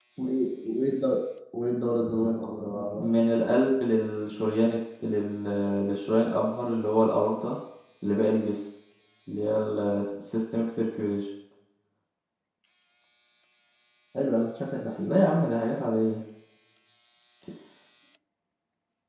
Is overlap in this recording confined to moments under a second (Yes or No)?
Yes